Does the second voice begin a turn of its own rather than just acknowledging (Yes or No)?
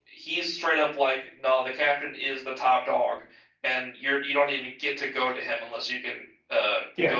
Yes